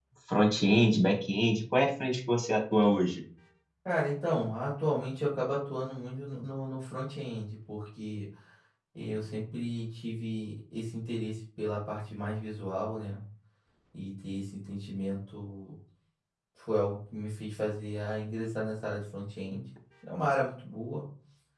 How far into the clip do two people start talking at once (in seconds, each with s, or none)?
none